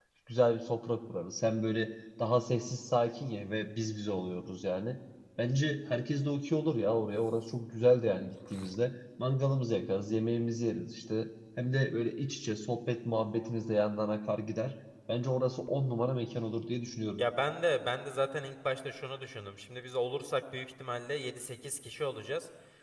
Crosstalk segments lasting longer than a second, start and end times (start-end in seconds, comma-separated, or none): none